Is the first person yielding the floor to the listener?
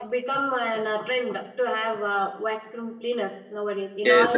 Yes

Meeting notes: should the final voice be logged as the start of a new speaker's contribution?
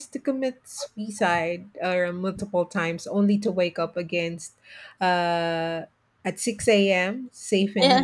No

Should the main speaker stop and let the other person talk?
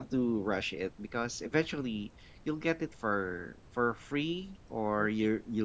No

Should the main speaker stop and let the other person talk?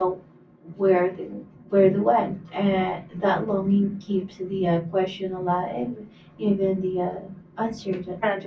Yes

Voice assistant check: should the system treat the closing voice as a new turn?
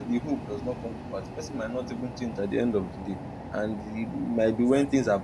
No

